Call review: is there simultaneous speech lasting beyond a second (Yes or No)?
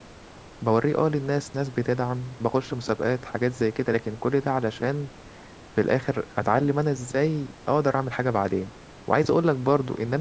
No